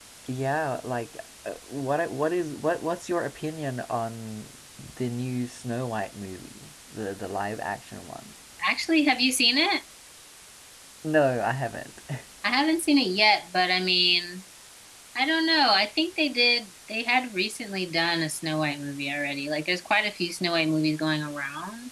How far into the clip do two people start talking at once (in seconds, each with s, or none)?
none